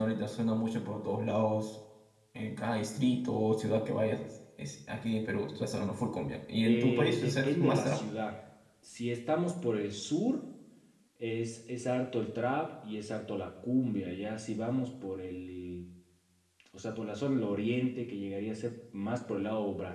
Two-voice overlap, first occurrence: 6.6 s

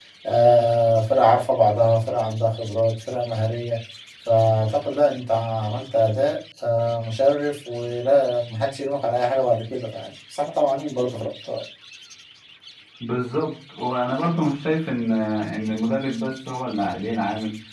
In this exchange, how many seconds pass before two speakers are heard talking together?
none

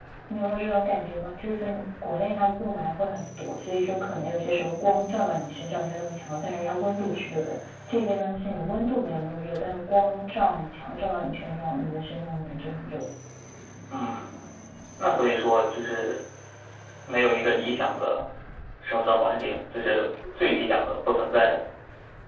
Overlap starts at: none

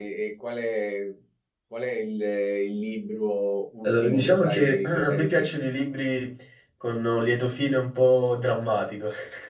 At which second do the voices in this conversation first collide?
3.8 s

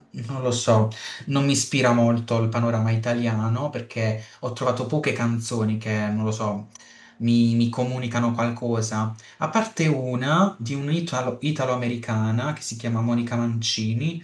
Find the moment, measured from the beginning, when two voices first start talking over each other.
none

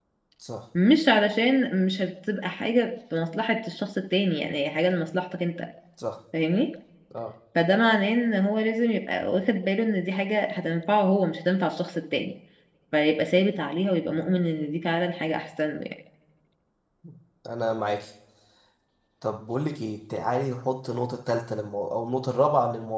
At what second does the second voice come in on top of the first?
none

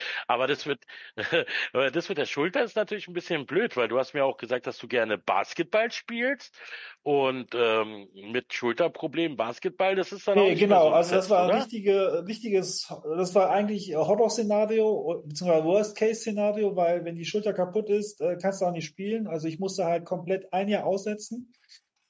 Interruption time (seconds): 10.3 s

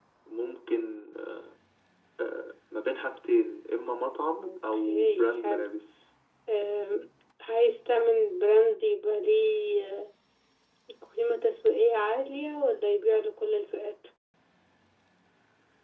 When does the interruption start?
4.4 s

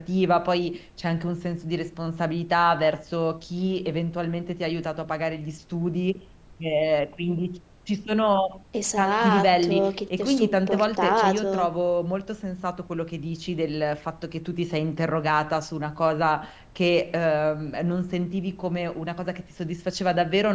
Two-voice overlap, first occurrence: 9.0 s

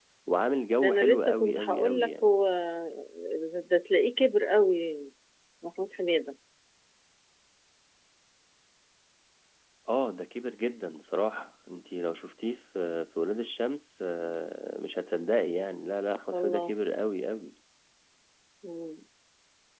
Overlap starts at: 0.8 s

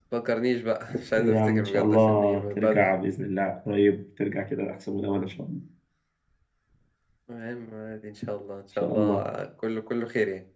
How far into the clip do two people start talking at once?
1.2 s

